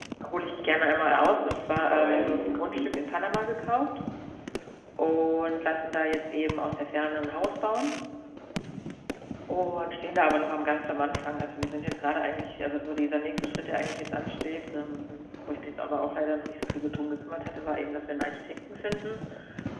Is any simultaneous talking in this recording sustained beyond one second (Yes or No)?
Yes